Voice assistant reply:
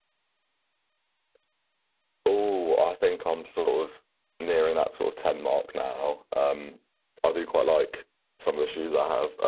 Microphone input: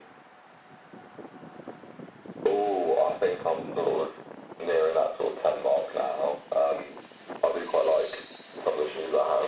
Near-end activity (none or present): none